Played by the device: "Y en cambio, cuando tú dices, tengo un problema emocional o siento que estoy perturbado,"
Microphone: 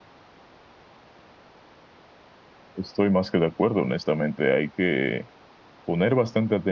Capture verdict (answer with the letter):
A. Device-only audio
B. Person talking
B